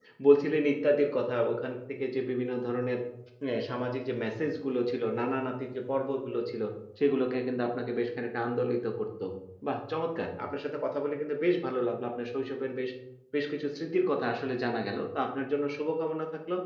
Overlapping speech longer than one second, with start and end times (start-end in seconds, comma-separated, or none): none